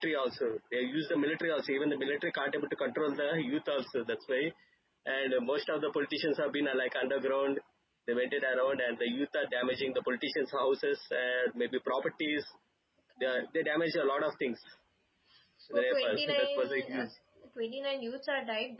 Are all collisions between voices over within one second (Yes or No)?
No